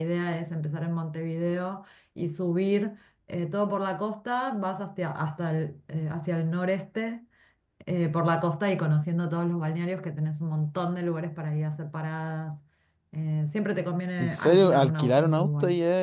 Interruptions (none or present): present